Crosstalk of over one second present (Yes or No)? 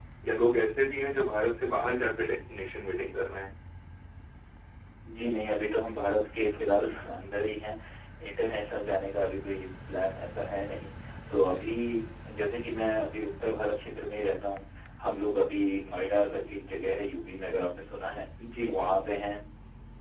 No